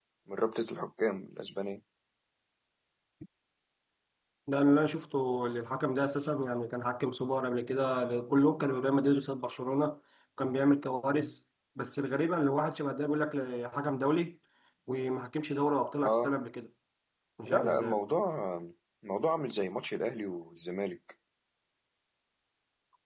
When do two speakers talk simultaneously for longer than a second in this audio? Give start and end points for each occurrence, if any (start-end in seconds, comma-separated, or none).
none